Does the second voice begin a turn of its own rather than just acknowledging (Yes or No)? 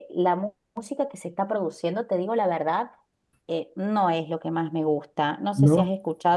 No